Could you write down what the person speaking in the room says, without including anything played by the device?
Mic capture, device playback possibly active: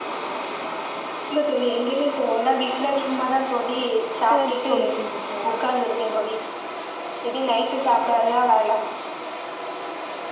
சரி தோழி சரி சரி

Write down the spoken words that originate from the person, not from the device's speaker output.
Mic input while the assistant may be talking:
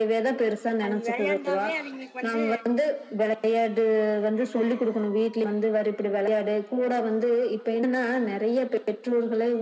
அன் வெளையாண்டாவே அவிங்ளுக் வந்து

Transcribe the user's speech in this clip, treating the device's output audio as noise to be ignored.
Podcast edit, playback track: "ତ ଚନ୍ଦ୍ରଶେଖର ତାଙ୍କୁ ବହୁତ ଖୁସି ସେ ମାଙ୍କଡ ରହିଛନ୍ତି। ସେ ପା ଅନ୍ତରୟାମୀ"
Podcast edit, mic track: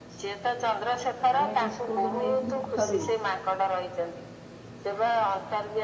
ଆମେ ବିସ୍କୁଟ ନେଇଥିଲୁ ଘରୁ

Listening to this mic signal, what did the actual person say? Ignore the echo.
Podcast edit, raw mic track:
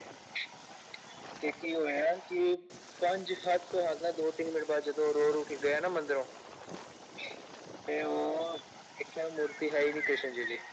none

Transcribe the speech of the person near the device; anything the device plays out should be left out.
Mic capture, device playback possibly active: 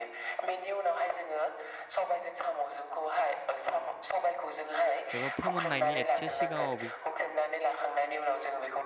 एबा फोमोननायनि एसे सिगाङाव

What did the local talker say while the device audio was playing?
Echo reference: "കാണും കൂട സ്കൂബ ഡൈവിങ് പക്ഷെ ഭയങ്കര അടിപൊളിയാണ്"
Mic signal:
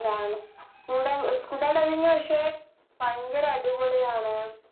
none

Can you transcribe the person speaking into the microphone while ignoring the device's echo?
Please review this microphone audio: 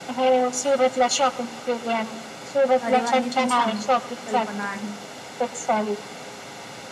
अरे वा. ही पण छान कल्पना आहे.

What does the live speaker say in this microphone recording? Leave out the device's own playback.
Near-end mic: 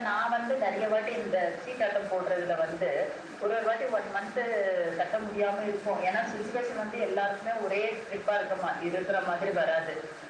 none

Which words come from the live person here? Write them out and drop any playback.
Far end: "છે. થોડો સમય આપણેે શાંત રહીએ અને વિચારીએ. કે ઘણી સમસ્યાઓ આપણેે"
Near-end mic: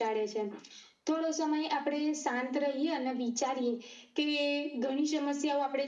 none

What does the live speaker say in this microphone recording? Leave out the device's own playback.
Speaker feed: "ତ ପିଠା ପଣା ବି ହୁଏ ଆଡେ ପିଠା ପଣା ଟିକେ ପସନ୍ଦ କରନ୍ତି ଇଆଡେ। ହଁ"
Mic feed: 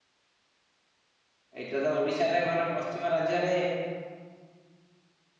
ଏଇଟା ତ ଓଡିଶାରେ ମାନେ ପଶ୍ଚି ମ ରାଜ୍ୟରେ

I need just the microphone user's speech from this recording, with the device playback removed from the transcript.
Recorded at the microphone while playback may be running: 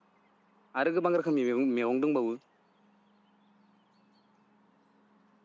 आरो गोबां रोखोमनि मेगं मेगं दंबावो

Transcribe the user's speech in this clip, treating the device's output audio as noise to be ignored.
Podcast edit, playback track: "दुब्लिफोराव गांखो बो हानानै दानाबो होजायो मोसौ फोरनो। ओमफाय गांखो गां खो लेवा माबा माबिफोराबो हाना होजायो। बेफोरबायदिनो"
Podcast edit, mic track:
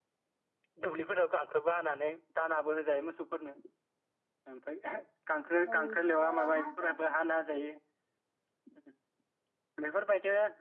औ नोंथां ओ हांसोयाथ

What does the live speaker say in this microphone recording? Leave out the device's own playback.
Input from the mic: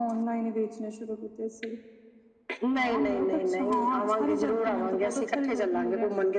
none

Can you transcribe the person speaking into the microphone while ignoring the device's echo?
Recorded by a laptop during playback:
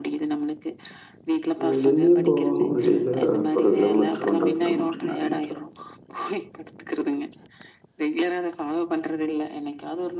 வெளிலயு போவங் வெடில ஒரு கிலோமீட்டரு ஒன்ற கிலோமீட்டரு நடந்துட்டு வ

